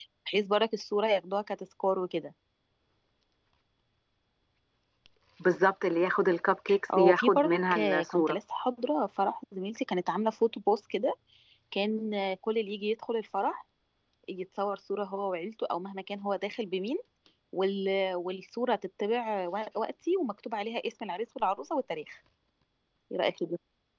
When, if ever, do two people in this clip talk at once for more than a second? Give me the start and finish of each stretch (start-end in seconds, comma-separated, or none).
7.0-8.4